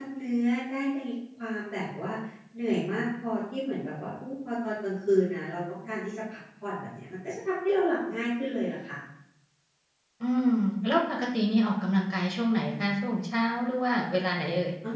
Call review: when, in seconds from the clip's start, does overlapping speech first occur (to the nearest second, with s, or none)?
none